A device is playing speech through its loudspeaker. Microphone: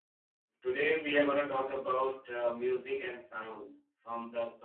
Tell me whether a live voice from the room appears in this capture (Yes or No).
Yes